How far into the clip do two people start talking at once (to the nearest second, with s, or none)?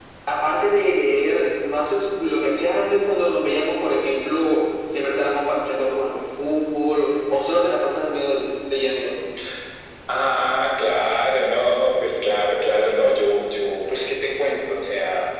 none